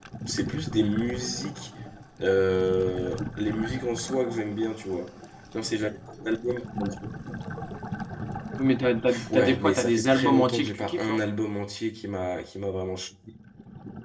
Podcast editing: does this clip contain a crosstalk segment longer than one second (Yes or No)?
Yes